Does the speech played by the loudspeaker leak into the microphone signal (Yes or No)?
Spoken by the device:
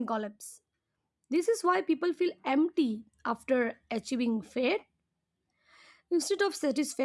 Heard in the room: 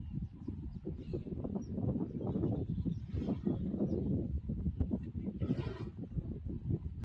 No